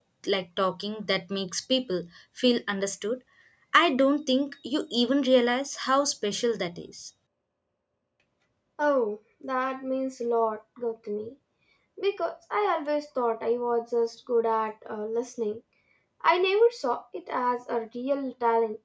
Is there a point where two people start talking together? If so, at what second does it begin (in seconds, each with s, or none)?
none